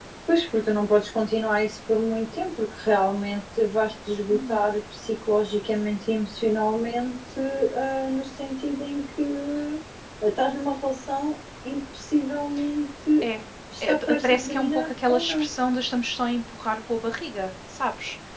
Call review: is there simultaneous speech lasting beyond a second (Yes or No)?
Yes